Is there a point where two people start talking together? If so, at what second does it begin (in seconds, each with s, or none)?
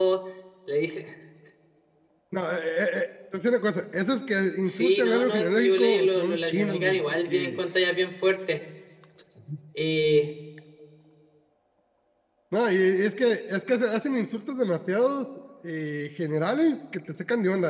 4.6 s